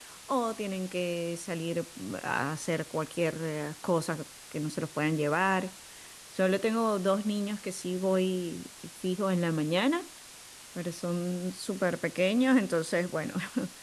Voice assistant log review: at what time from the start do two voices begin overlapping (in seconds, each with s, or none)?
none